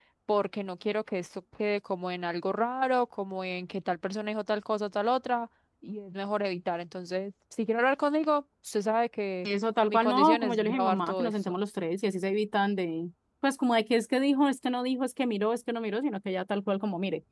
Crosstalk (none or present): present